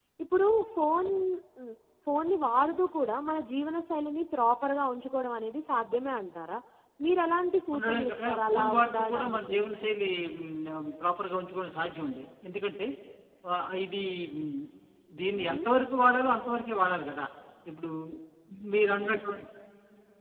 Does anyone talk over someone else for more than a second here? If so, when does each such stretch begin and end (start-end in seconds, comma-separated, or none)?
7.7-9.6